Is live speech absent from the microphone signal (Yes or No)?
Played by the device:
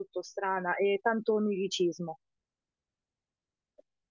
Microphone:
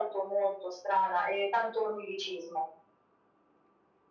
Yes